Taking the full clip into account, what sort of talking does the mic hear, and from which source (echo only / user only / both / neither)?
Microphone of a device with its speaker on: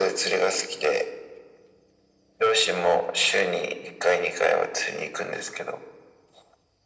echo only